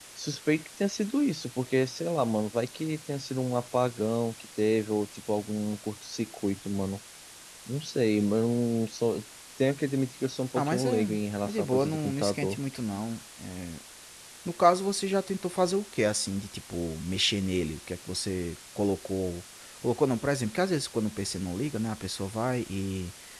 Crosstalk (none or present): present